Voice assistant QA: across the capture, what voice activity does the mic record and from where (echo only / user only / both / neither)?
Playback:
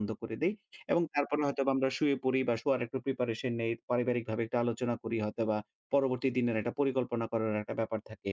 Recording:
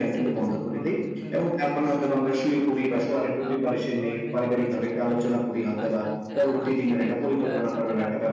both